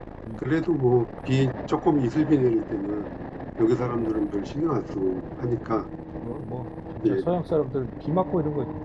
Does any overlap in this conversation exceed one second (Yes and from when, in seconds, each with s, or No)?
No